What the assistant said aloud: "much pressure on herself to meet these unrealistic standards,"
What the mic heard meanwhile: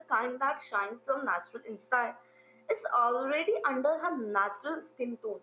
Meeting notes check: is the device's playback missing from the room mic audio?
Yes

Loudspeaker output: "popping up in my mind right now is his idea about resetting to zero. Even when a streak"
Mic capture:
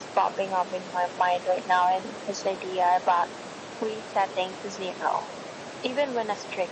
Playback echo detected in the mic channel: Yes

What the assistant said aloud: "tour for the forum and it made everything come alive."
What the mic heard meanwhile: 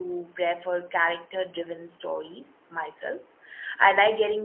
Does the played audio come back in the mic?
No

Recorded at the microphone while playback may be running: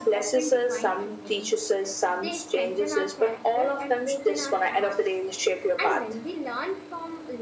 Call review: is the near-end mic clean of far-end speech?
No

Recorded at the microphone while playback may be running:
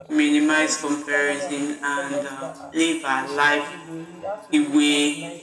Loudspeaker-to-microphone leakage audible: Yes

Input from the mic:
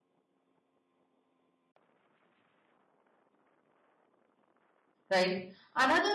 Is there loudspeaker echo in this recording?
No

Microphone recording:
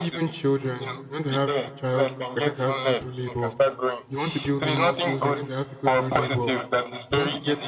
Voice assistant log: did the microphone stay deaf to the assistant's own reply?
No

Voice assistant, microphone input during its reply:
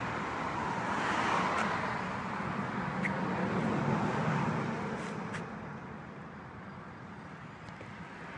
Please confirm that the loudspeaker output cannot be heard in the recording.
Yes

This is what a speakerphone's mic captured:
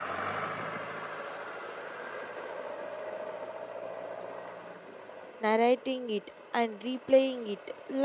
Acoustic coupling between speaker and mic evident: No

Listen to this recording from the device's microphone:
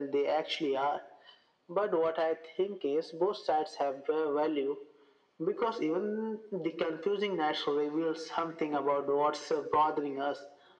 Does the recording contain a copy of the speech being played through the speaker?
Yes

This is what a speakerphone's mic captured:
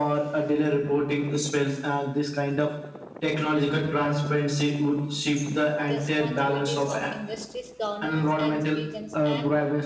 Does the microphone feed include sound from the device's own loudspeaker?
Yes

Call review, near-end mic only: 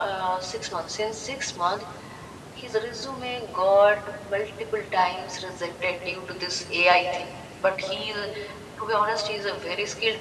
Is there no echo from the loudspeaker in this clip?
No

